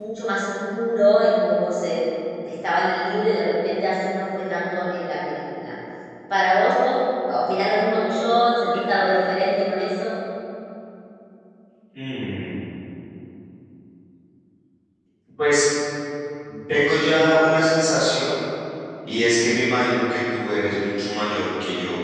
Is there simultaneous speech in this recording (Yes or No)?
No